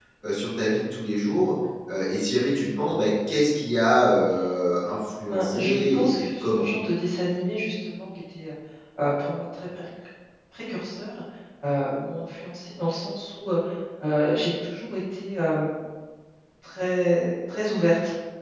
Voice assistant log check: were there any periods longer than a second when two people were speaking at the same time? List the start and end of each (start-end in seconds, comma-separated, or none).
5.3-6.7